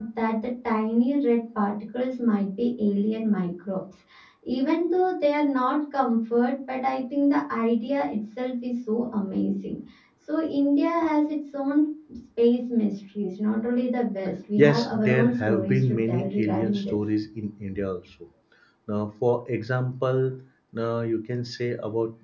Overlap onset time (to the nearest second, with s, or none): 15 s